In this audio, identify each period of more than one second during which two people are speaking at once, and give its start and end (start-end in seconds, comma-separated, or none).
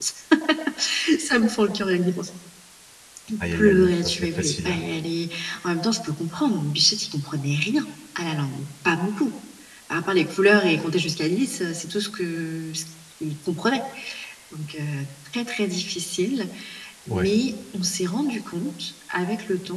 3.4-4.8